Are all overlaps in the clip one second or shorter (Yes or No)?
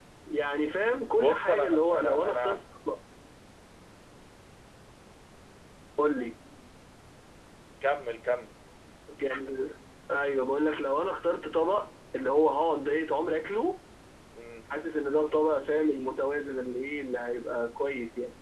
No